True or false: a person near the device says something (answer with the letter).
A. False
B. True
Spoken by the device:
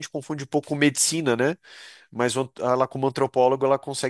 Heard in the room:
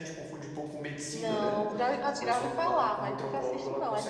B